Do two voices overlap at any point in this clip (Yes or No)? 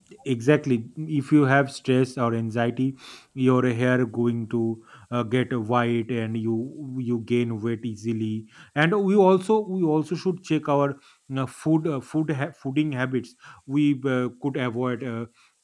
No